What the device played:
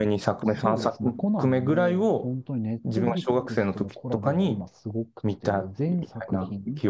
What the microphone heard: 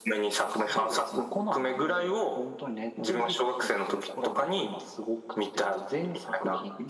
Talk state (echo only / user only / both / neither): echo only